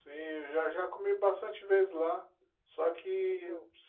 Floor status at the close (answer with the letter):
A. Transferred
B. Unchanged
B